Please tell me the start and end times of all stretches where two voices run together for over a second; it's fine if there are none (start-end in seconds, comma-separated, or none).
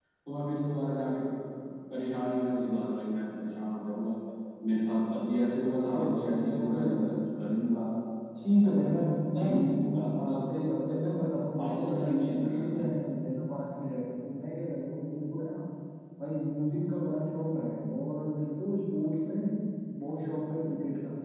5.9-7.2, 8.6-10.4, 11.6-12.9